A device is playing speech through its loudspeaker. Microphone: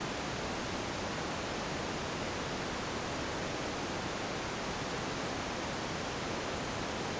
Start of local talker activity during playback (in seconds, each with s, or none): none